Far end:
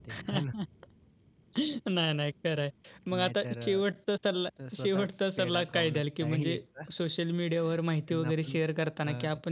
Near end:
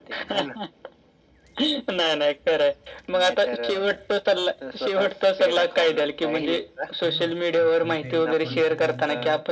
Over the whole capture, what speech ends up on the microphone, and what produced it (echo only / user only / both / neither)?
both